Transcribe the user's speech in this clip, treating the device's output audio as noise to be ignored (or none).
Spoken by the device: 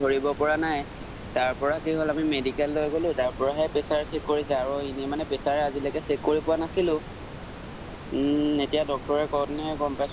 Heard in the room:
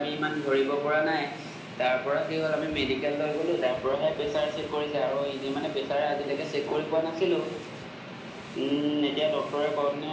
none